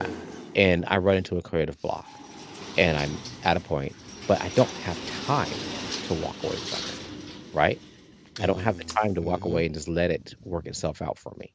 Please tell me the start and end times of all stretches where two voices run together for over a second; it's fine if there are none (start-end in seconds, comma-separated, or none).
8.4-9.6